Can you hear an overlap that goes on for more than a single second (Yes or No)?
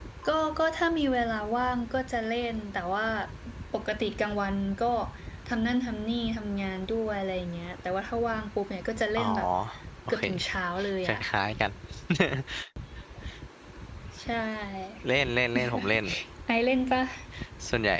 No